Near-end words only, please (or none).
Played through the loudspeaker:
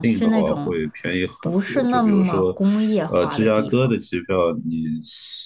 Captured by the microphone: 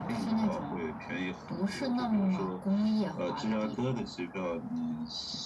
none